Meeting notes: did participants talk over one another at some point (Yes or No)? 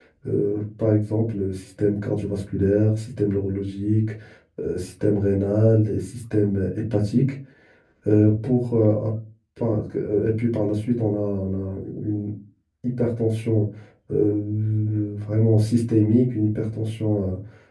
No